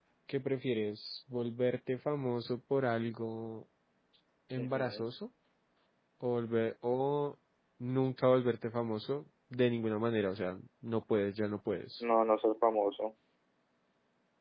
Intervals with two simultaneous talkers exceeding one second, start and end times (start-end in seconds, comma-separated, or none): none